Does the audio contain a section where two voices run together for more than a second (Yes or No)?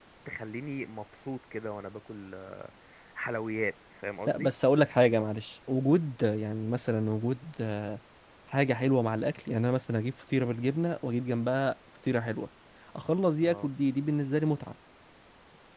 No